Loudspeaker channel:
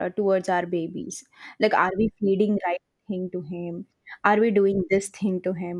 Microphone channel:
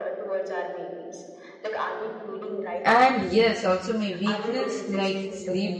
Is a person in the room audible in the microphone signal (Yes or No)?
Yes